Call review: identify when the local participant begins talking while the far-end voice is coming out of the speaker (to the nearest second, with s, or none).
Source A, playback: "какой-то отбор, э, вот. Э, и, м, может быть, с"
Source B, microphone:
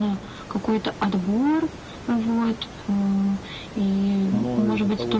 4 s